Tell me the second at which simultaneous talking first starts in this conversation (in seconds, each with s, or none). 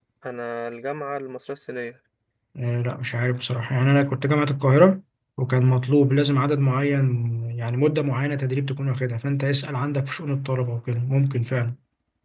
none